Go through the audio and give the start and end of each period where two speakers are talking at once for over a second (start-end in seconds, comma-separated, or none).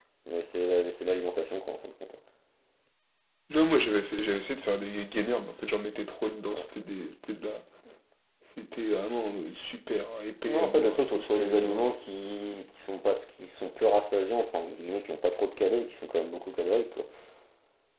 10.5-11.9